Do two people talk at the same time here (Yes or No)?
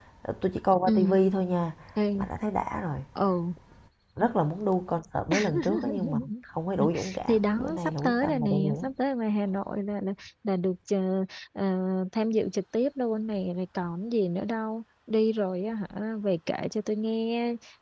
Yes